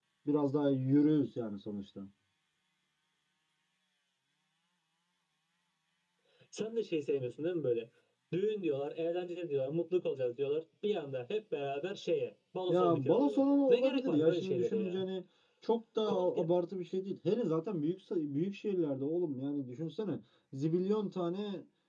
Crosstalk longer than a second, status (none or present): present